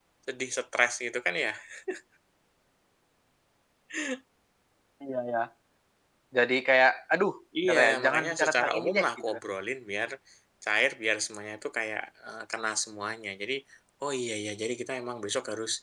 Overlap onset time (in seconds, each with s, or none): 7.6 s